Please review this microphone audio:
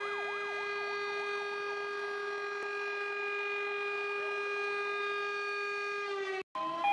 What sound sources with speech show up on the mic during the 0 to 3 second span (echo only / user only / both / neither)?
neither